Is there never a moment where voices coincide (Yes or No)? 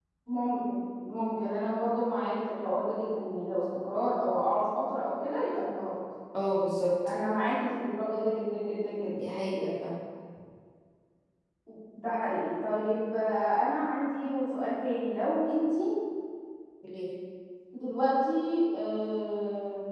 Yes